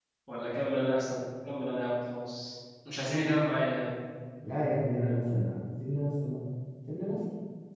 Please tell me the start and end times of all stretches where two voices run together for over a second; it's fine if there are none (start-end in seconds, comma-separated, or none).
none